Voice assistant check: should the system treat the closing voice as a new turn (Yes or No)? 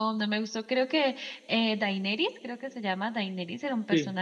No